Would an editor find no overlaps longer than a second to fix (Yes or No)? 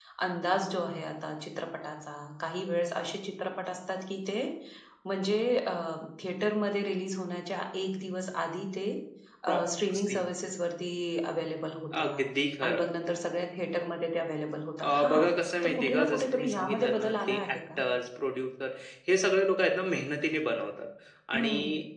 No